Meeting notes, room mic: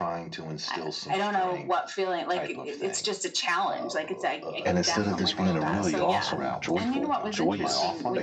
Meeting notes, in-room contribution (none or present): present